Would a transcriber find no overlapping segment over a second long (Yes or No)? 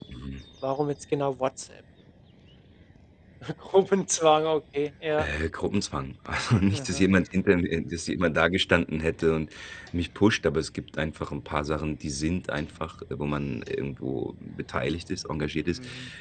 Yes